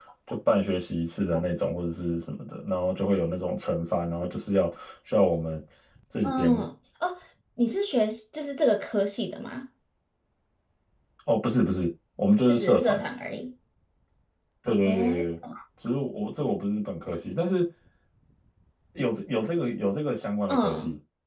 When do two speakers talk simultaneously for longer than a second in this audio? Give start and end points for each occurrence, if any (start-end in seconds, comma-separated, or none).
none